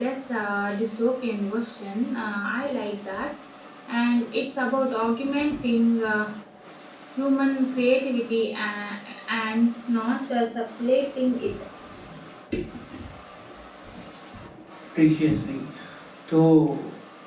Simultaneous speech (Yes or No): No